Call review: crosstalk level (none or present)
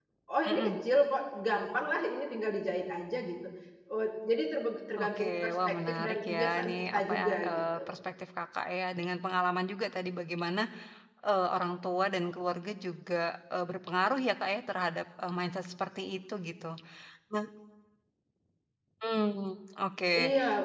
present